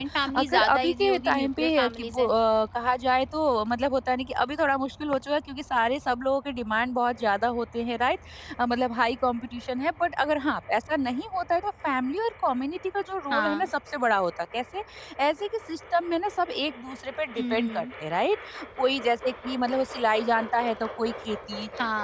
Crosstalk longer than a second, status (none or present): present